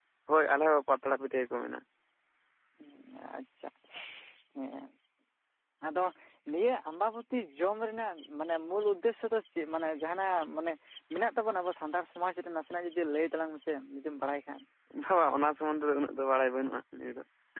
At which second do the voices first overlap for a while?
none

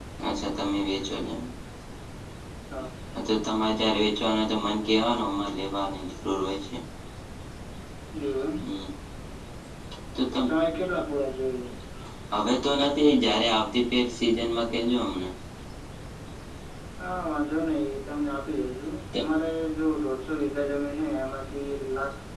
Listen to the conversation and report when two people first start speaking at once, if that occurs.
none

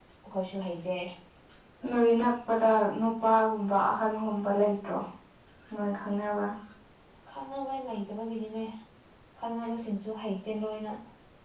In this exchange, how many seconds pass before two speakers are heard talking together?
none

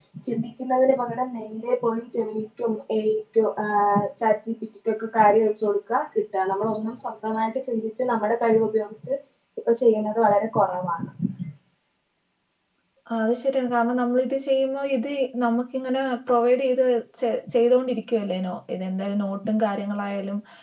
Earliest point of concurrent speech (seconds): none

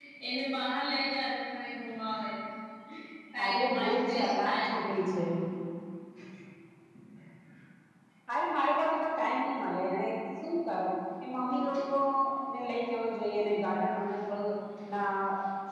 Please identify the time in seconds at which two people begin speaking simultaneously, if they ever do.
3.4 s

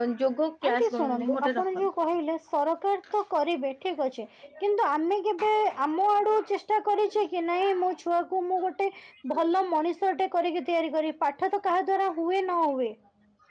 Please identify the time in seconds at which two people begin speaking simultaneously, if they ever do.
0.7 s

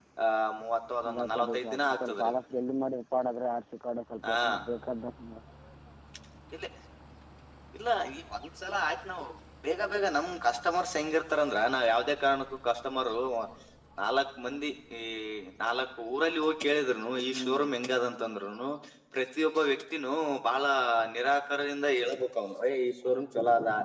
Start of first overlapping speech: 1.1 s

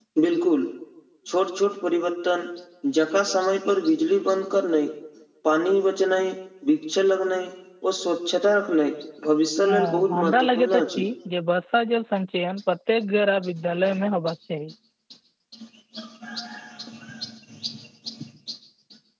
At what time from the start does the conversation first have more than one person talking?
9.6 s

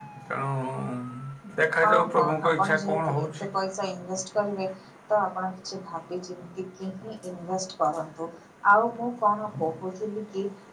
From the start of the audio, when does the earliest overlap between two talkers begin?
1.8 s

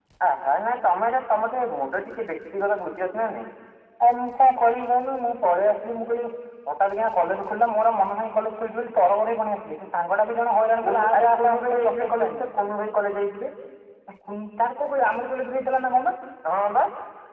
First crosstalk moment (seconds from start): 10.8 s

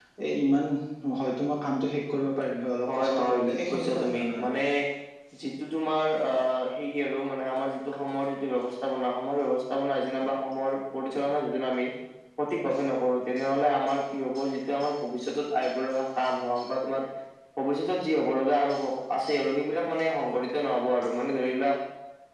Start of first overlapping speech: 2.9 s

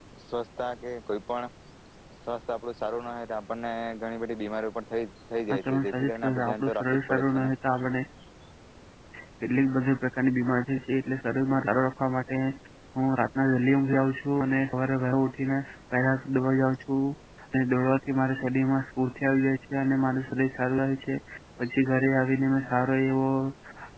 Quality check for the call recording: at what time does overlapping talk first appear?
5.5 s

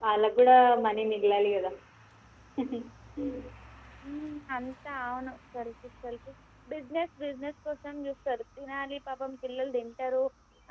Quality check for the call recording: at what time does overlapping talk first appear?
none

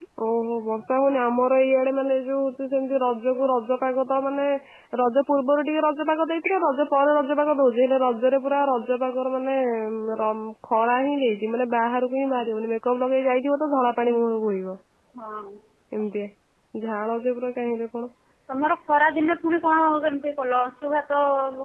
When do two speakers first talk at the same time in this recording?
none

